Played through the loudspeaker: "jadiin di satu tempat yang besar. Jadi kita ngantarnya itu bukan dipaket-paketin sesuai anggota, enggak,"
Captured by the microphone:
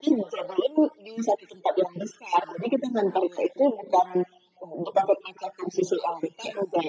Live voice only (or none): none